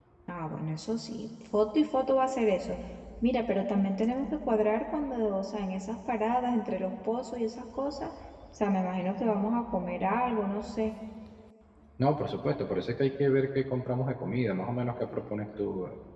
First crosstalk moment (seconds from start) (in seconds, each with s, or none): none